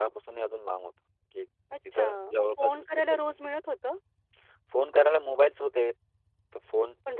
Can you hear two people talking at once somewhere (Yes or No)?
Yes